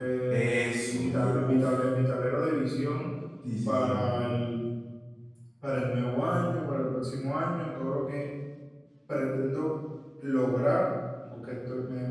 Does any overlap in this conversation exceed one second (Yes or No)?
Yes